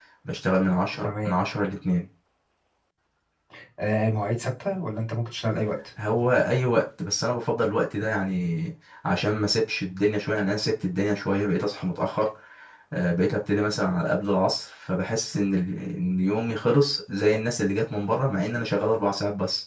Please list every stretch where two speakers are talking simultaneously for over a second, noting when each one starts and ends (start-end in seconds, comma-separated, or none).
none